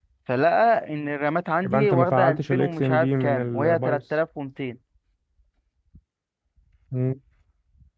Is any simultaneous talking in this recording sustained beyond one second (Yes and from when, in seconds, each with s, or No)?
Yes, from 1.6 s